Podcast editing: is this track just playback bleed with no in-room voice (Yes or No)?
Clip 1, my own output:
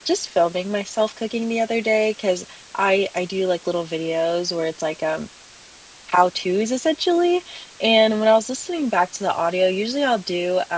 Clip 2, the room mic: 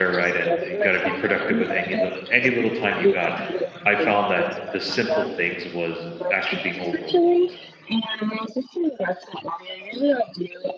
No